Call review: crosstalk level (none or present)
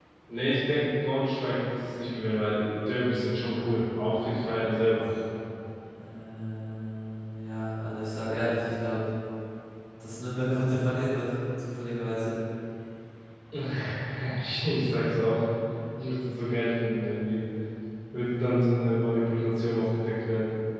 none